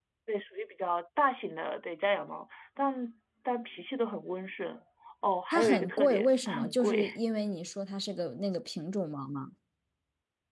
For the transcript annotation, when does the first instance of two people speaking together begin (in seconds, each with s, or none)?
5.5 s